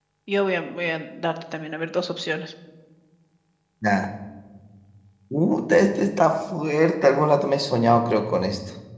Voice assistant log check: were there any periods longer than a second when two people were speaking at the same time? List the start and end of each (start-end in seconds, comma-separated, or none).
none